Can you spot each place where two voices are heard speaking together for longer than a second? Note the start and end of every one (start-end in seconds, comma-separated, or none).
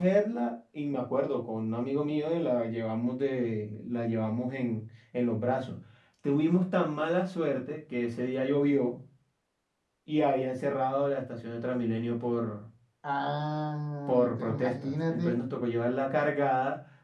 14.1-15.4